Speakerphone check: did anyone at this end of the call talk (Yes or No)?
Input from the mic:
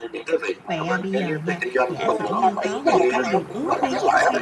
Yes